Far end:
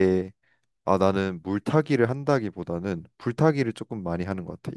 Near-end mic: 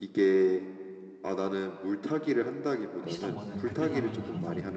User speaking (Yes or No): Yes